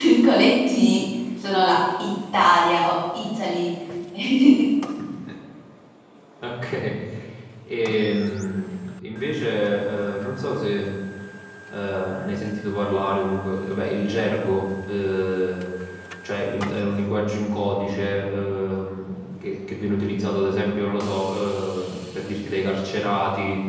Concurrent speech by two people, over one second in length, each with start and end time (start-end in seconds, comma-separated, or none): none